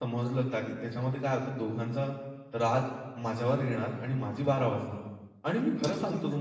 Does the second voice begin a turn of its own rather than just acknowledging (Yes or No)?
No